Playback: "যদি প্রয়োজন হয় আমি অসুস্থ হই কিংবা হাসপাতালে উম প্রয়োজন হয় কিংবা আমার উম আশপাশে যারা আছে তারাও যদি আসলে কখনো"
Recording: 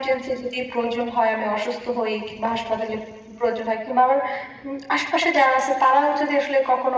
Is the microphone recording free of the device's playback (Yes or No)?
No